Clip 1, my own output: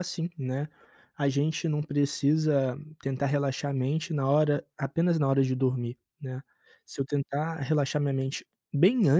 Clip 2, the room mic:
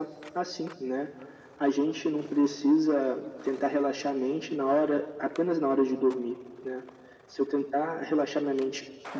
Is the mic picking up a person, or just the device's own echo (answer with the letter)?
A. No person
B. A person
A